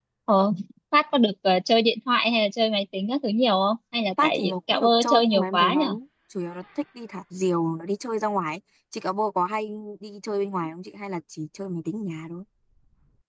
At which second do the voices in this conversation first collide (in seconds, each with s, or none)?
4.2 s